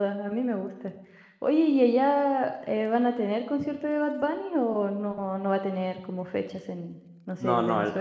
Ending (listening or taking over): taking over